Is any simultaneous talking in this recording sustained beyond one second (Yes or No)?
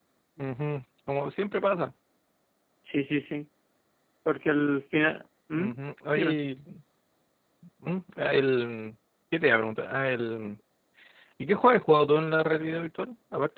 No